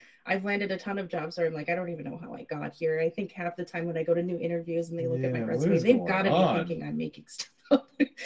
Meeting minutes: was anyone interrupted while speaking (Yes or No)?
Yes